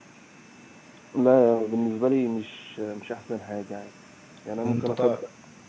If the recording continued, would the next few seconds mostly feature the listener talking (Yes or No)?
No